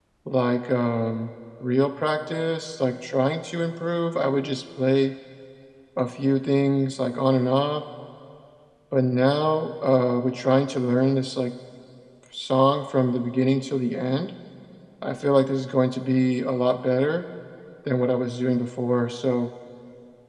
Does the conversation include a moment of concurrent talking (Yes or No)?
No